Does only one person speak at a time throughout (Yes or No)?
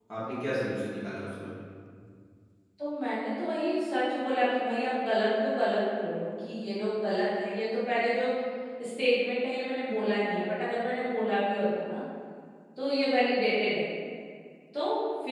Yes